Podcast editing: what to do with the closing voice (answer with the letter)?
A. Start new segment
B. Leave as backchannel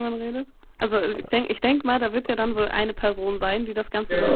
A